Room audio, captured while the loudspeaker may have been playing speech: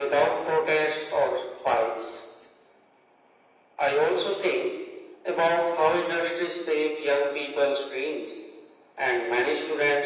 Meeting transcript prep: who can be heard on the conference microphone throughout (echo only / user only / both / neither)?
echo only